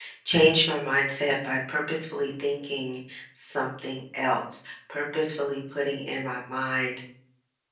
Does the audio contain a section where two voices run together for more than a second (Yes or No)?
No